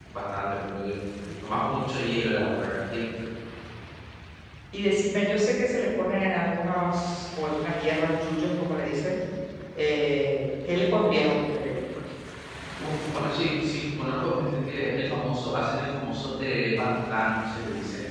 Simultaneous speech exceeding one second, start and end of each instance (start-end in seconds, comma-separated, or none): none